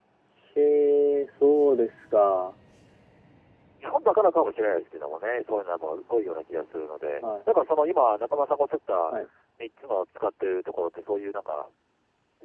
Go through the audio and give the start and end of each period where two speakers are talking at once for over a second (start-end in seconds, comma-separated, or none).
none